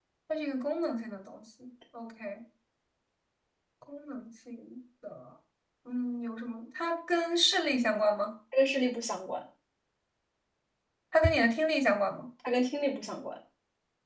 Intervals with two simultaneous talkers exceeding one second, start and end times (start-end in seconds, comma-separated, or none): none